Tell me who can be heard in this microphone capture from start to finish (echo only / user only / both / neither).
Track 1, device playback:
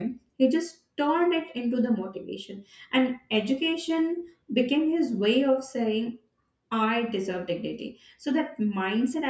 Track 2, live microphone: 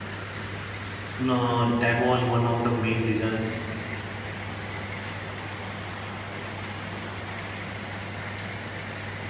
user only